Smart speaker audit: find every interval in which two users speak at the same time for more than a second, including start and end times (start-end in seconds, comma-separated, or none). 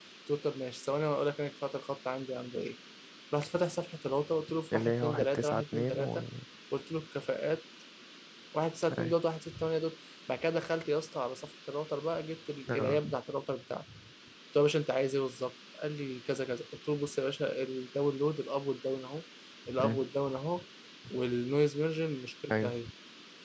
4.7-6.2